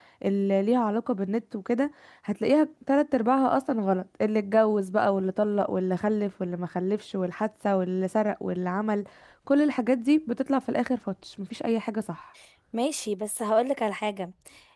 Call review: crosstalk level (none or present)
none